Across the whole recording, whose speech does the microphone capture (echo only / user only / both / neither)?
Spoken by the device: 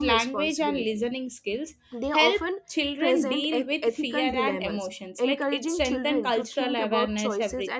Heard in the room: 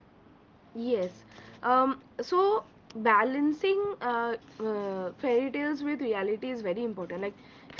user only